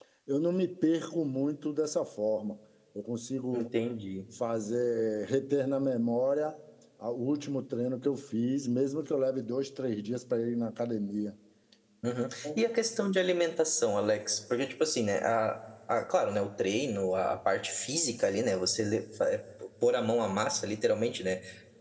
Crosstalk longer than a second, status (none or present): none